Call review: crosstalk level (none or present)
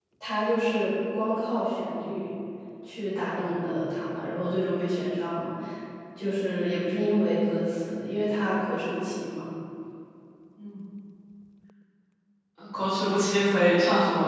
none